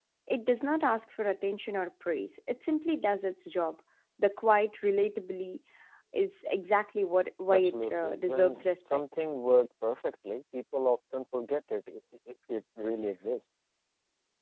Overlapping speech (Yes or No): Yes